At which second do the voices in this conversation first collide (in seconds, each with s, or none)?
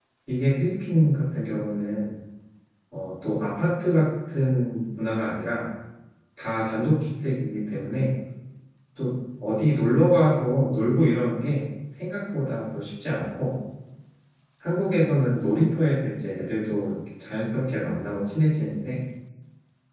none